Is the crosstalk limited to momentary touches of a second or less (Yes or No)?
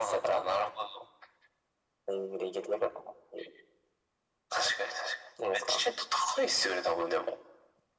Yes